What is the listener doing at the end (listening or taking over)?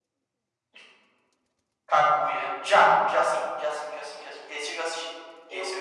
taking over